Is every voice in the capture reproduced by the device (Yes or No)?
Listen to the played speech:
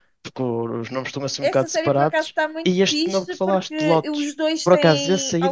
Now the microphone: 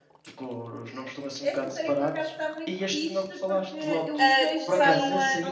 No